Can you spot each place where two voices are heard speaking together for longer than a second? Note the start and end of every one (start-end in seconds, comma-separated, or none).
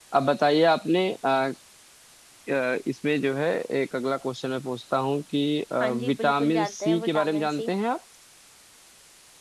5.8-7.7